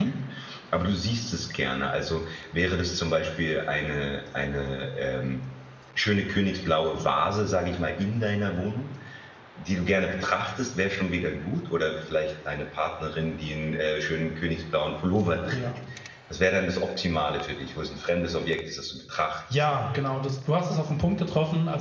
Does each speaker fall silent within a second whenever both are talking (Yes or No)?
Yes